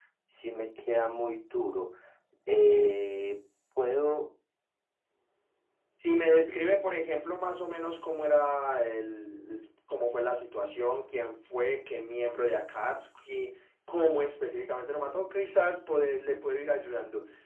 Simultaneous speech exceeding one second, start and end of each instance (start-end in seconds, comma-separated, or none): none